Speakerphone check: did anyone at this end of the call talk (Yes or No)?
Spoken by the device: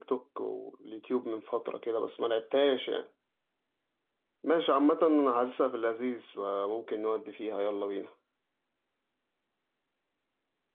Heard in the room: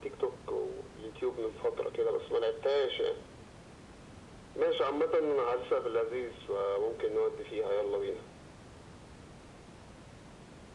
No